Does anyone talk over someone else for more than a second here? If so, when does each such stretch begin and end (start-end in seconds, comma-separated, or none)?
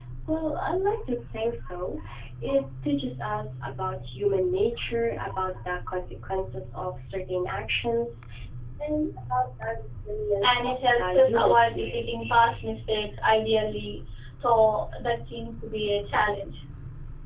10.4-12.0